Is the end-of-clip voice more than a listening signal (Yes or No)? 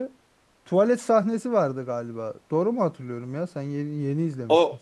Yes